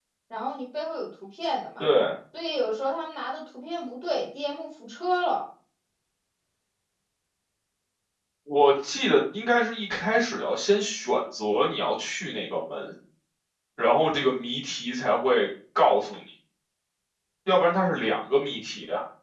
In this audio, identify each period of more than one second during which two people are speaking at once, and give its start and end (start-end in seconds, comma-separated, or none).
none